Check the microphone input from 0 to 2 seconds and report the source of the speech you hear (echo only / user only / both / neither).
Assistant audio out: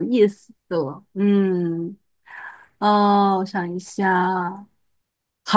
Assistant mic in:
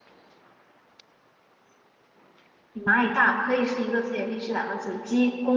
neither